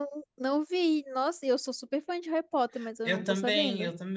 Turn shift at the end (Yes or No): Yes